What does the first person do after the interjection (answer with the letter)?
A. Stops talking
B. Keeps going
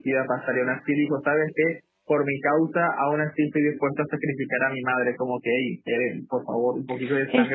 A